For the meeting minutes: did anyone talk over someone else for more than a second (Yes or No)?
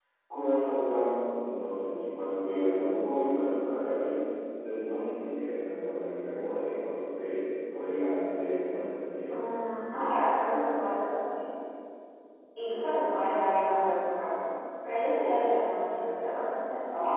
No